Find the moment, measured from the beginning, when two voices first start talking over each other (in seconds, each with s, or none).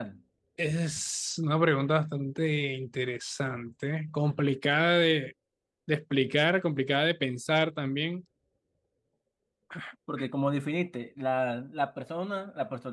none